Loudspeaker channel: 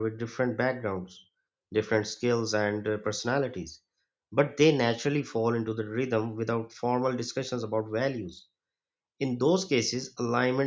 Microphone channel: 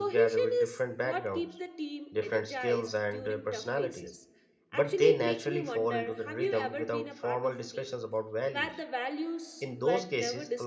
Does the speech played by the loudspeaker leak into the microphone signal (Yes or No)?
Yes